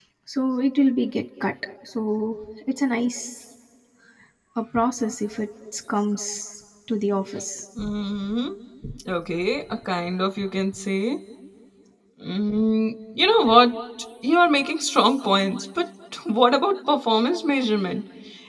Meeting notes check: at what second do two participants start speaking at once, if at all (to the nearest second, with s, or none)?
none